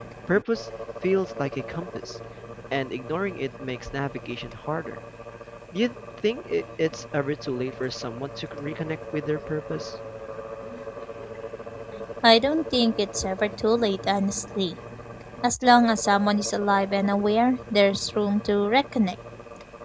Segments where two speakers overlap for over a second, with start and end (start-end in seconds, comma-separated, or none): none